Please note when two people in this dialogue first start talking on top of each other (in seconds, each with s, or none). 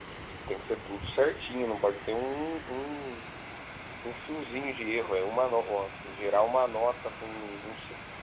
none